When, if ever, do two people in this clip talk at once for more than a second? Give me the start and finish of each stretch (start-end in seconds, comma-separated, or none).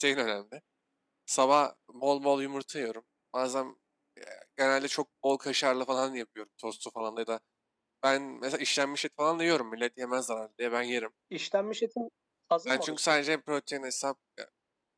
none